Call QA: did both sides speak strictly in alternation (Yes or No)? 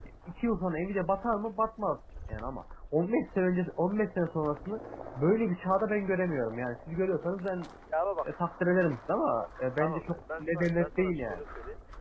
No